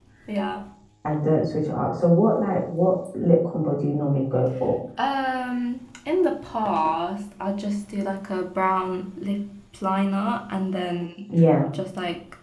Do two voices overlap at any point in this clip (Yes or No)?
No